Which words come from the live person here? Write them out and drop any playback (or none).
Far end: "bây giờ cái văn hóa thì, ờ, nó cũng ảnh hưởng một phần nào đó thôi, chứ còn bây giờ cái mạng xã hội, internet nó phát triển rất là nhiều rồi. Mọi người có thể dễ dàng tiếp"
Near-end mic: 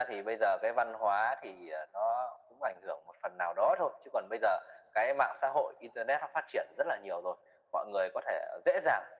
none